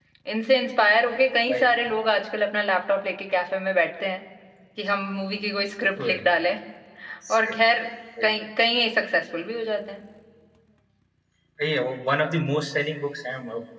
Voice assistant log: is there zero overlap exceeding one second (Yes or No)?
Yes